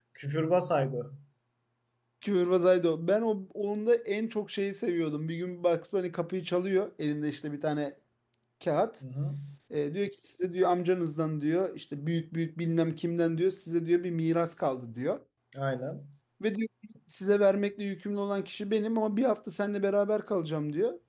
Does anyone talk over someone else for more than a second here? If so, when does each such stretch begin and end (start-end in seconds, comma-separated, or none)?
none